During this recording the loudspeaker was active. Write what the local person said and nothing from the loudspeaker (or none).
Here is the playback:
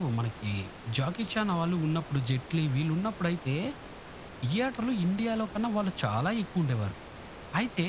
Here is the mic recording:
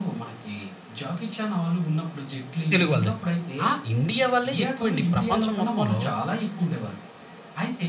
తెలుగు వాళ్ళదెక్కువ. ఆ! ఇండియావాళ్ళే ఎక్కువండి ప్రపంచం మొత్తంలో.